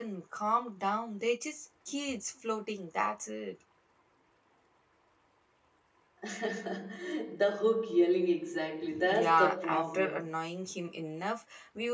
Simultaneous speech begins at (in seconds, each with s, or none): 9.1 s